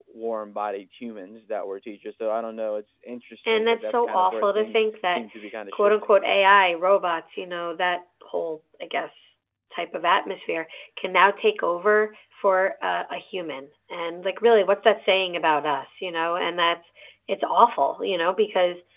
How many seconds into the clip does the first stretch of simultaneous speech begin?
3 s

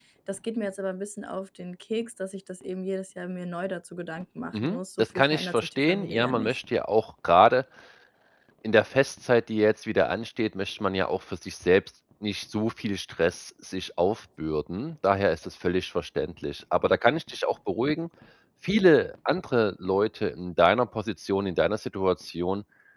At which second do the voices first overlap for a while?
5 s

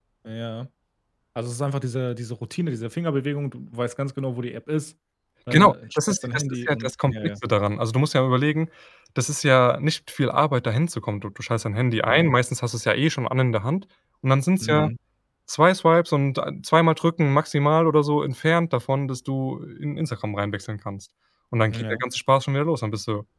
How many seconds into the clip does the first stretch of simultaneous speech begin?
6 s

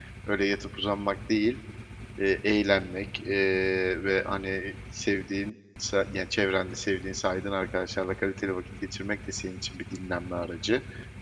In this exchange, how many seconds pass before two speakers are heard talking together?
none

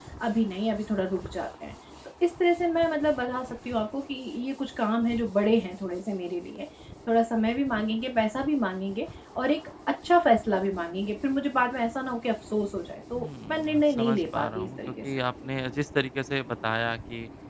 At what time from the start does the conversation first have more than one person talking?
13 s

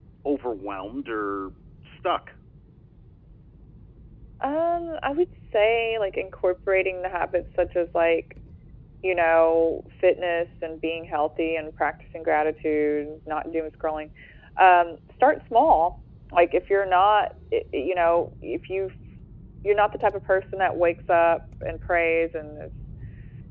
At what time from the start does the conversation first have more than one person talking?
none

